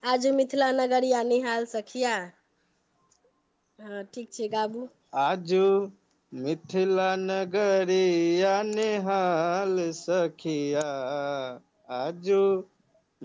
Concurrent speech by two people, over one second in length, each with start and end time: none

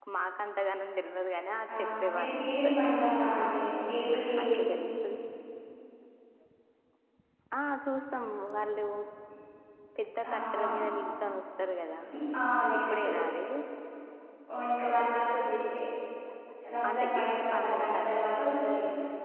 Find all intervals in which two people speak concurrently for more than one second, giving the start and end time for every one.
1.8-3.5, 16.9-18.5

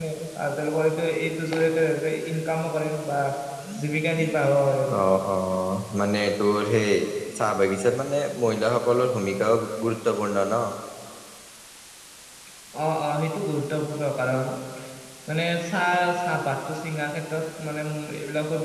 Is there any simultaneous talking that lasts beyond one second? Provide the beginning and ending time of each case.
none

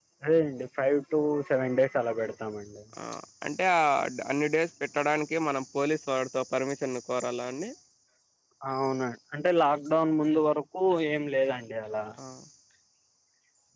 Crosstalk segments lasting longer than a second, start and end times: none

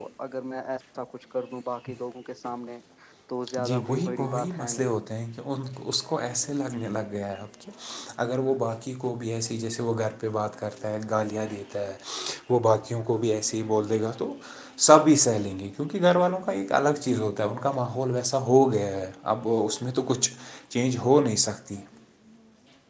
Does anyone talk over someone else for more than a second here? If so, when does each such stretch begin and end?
3.6-4.9

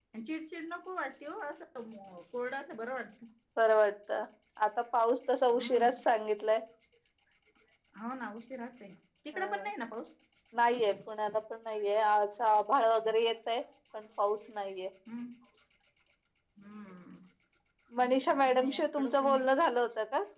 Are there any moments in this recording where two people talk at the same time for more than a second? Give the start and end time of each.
18.0-19.4

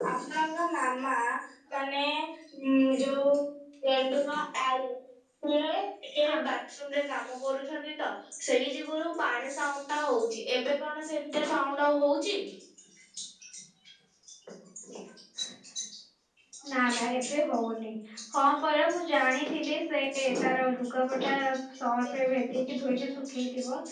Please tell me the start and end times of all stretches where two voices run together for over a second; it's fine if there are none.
none

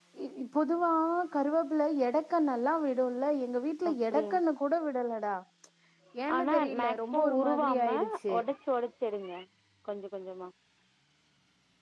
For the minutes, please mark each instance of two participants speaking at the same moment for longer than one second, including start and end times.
6.4-8.0

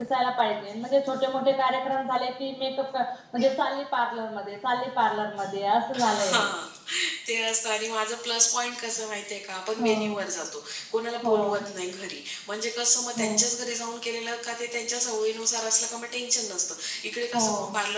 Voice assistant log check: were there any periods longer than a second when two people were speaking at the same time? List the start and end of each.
none

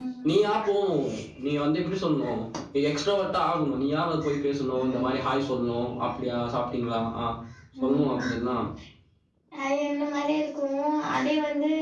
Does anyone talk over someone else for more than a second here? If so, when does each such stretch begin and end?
none

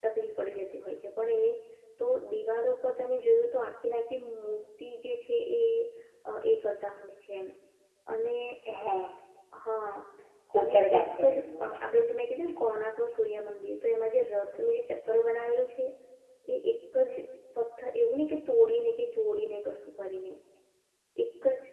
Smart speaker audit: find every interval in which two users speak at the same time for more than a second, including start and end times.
10.6-11.8

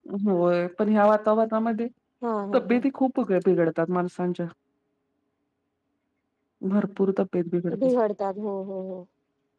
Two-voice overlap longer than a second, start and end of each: none

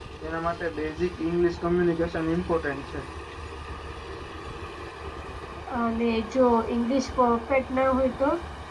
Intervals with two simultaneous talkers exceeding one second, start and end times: none

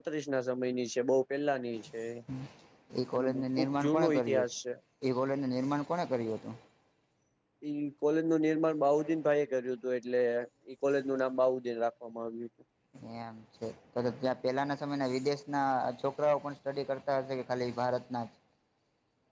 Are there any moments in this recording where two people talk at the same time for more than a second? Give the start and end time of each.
3.1-4.5

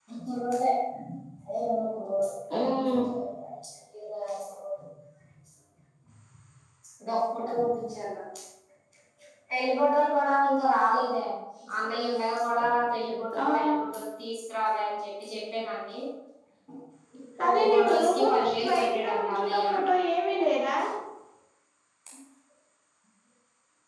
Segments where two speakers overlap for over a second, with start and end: 17.4-19.7

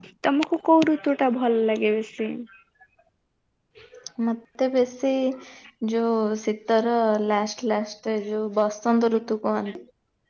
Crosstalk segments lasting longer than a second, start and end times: none

